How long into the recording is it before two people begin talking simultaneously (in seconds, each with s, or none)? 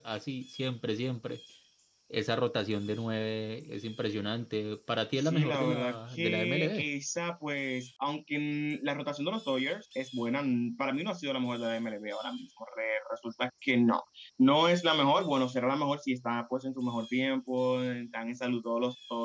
5.2 s